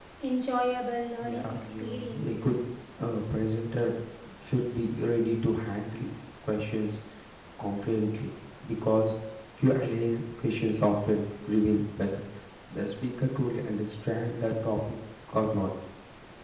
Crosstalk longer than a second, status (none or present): present